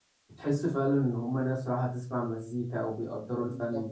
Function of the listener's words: taking over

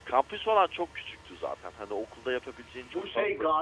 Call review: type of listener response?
taking over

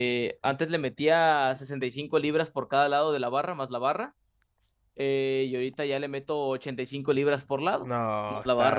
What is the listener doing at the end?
taking over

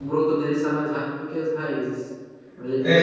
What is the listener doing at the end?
taking over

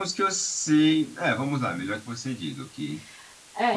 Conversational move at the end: taking over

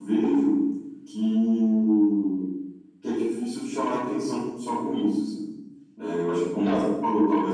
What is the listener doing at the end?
listening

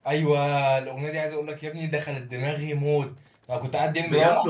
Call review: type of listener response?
listening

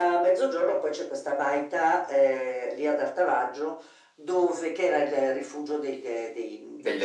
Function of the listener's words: listening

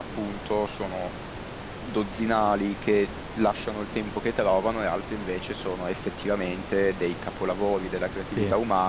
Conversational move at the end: listening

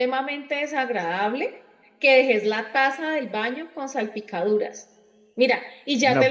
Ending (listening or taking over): listening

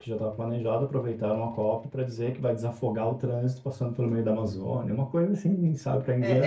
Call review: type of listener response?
taking over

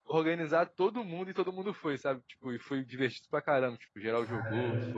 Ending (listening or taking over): listening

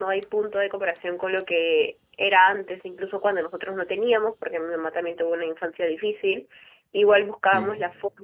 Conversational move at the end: listening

